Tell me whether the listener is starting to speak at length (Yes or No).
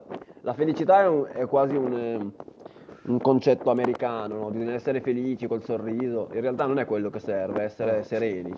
No